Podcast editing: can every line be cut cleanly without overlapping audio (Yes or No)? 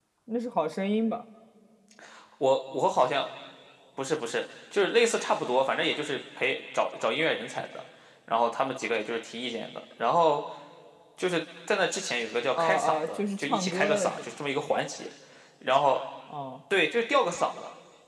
No